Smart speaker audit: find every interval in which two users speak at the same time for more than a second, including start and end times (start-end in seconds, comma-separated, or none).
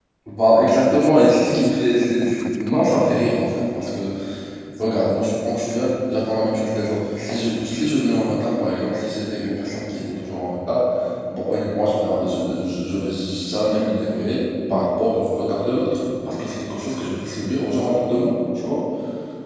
0.6-3.1